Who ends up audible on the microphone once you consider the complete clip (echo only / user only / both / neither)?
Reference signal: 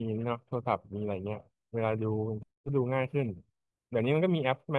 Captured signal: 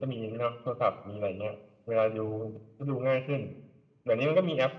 echo only